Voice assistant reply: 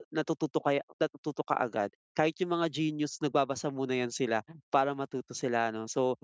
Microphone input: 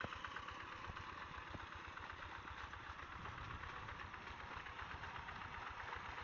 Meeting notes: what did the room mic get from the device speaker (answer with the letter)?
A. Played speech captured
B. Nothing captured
B